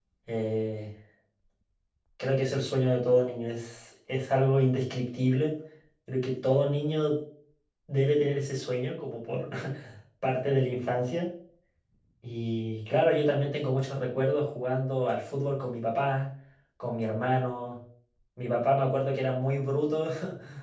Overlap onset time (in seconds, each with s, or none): none